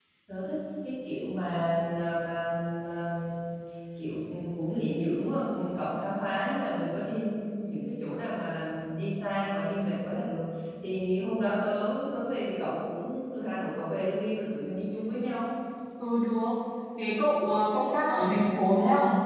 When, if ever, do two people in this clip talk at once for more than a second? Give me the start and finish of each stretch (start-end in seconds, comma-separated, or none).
none